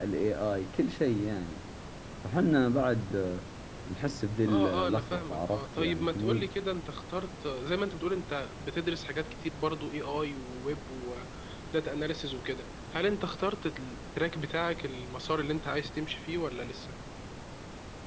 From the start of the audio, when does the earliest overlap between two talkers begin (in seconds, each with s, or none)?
4.5 s